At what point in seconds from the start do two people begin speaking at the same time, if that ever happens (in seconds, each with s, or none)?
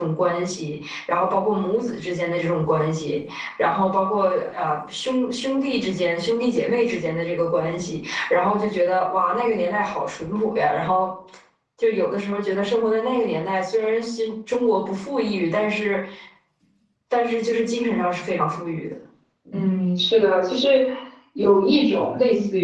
none